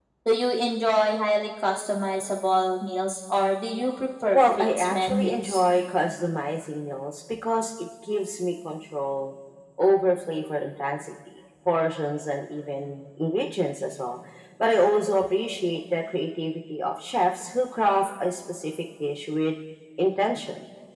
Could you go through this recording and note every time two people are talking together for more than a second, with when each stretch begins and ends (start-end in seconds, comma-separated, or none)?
4.3-5.6